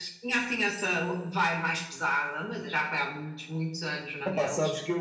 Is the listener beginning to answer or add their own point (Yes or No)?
Yes